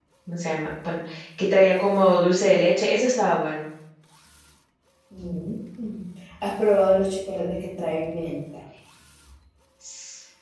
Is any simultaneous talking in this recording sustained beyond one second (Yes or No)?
No